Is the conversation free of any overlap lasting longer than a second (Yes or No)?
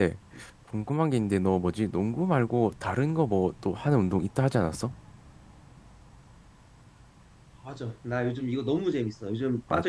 Yes